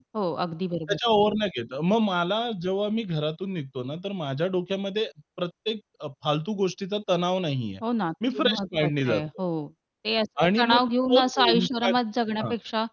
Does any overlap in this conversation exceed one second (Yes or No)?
Yes